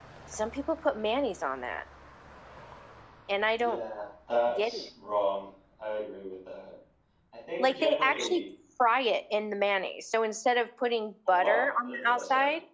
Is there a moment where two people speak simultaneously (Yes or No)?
Yes